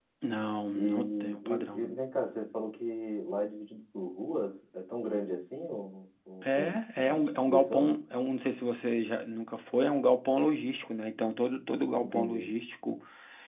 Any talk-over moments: Yes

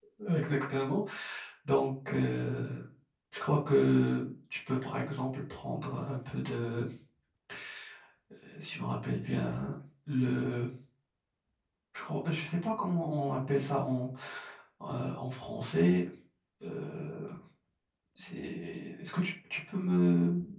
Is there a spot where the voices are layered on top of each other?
No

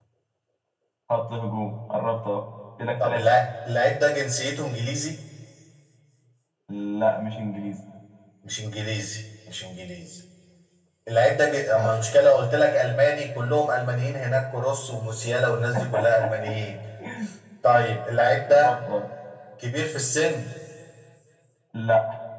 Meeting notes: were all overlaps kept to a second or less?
Yes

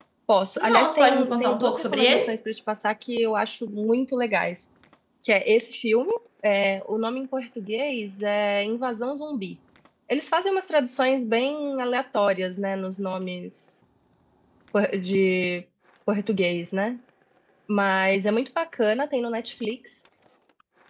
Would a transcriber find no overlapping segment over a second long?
No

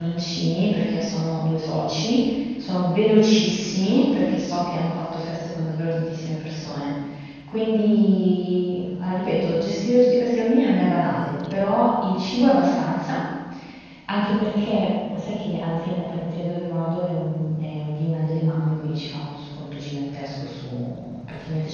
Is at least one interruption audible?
No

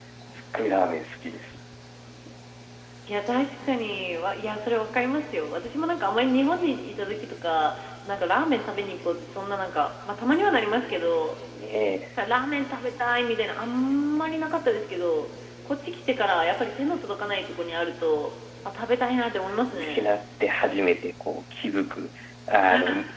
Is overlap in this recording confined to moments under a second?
Yes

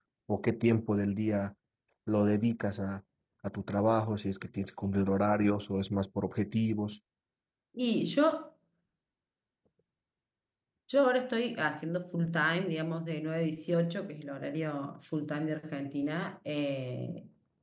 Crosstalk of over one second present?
No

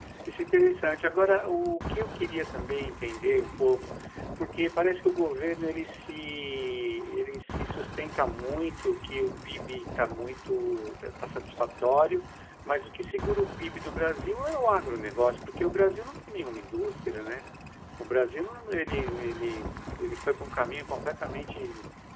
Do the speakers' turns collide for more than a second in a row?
No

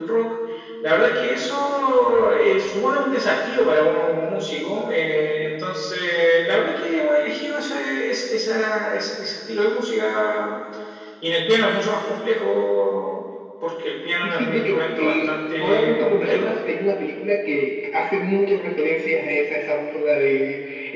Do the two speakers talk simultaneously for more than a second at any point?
Yes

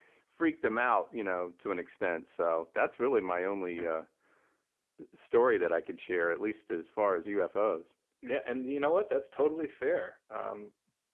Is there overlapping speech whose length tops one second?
No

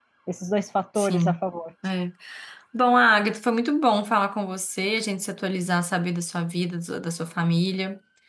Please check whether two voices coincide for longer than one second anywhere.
No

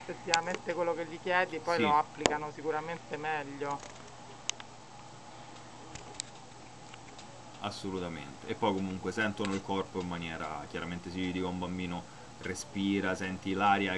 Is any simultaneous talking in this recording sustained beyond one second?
No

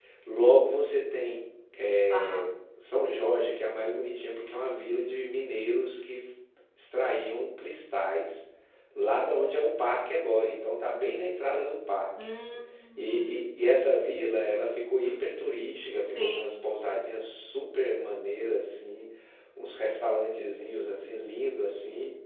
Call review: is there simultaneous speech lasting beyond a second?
No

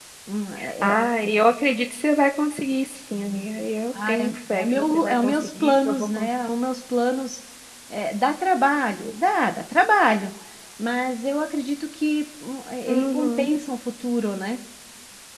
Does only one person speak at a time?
No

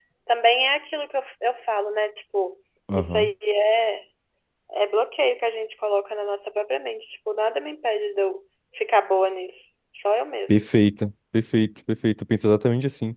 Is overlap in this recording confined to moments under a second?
Yes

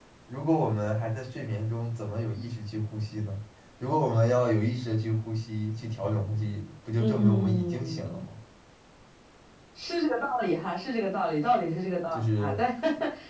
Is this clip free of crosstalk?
No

